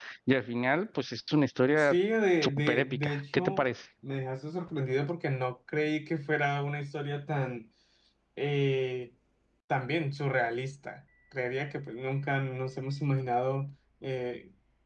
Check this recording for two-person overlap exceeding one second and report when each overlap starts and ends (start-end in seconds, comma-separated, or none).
2.4-3.6